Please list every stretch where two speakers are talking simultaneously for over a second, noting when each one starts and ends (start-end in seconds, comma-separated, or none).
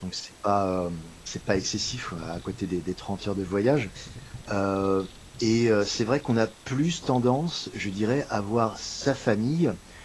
none